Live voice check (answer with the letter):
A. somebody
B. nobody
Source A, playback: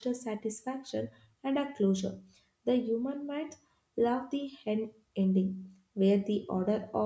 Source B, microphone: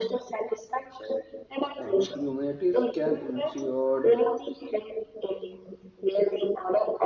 A